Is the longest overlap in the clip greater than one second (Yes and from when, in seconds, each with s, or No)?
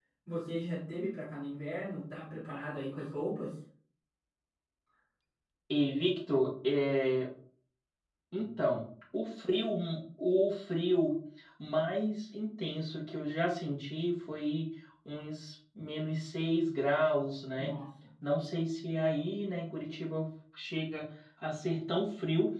No